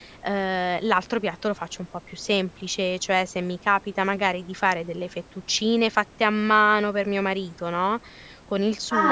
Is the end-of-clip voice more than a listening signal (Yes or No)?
Yes